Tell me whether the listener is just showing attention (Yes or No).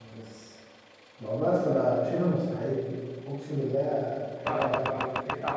No